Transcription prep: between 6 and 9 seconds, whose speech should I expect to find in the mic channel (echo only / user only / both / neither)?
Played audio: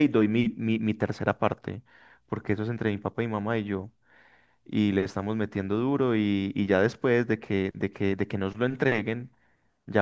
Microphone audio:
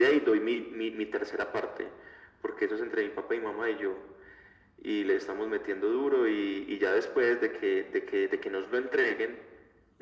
echo only